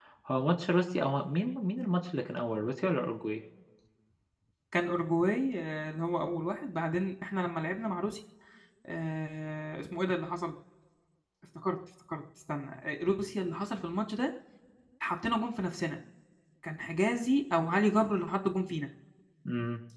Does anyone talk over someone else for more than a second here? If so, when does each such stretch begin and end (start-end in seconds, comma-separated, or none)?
none